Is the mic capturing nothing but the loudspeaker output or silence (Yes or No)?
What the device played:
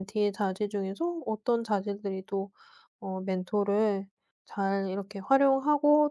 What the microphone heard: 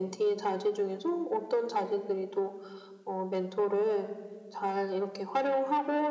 Yes